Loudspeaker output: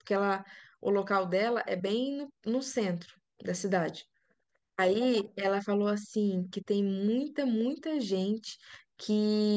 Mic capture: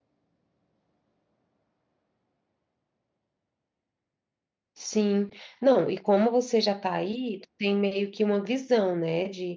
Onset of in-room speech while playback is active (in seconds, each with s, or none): 4.7 s